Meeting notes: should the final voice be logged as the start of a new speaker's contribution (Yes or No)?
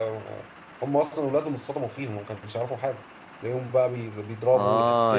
Yes